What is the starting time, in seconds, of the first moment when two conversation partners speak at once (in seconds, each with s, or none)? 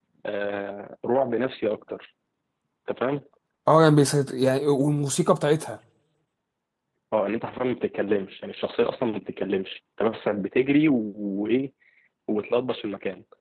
none